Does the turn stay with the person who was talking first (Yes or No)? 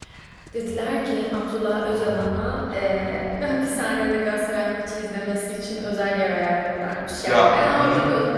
Yes